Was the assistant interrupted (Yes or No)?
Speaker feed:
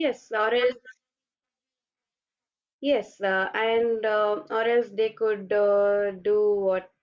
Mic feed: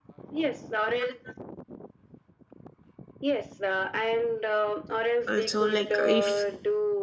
Yes